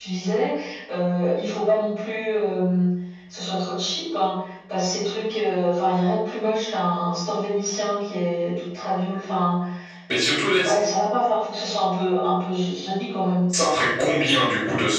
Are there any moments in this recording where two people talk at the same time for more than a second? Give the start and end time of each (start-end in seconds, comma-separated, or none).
none